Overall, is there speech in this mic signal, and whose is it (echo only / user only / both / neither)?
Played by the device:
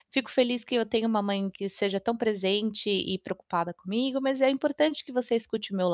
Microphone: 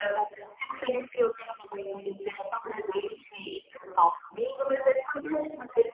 echo only